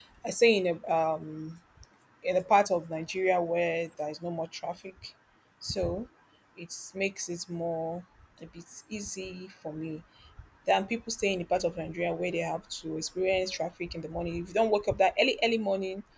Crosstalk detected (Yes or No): No